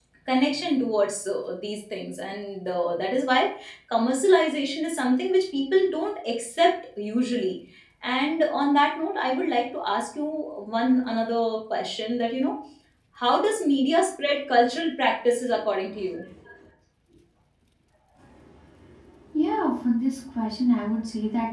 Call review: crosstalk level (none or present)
none